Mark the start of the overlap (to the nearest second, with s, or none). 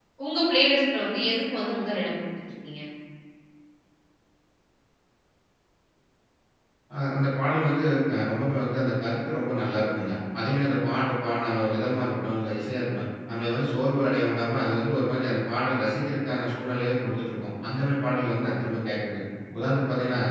none